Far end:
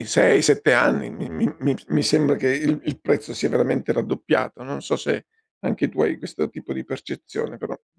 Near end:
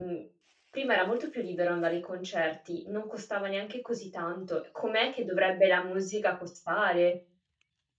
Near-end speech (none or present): present